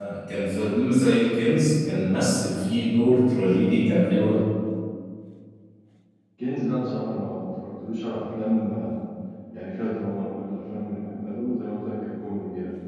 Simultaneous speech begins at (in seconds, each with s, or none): none